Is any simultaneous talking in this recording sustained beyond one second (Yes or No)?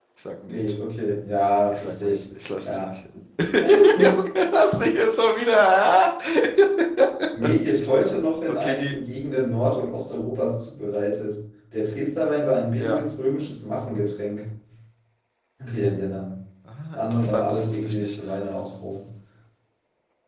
Yes